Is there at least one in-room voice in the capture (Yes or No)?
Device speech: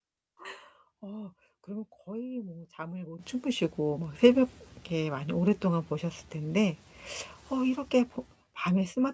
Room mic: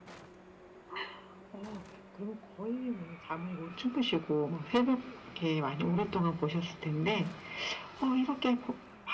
No